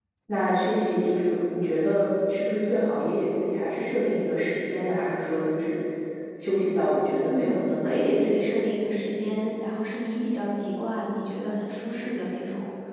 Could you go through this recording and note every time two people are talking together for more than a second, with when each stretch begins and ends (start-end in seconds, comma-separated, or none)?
7.3-8.6